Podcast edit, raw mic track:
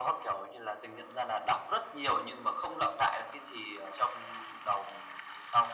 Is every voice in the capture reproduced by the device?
Yes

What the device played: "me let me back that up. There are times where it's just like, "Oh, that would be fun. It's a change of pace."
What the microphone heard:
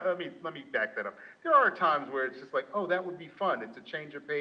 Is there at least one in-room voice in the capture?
No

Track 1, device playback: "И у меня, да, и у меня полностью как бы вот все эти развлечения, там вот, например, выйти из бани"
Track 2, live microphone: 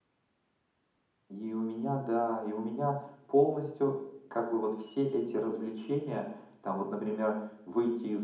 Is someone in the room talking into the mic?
No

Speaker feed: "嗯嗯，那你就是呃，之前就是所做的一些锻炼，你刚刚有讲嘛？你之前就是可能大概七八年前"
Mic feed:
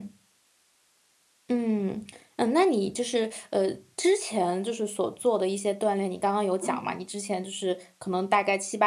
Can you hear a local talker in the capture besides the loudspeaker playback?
Yes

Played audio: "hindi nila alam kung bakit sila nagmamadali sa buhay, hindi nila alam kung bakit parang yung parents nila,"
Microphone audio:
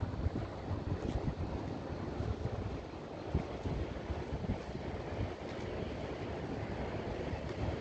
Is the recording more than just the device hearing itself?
No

